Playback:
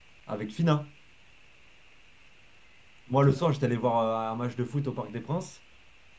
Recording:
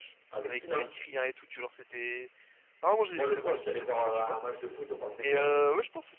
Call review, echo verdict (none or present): present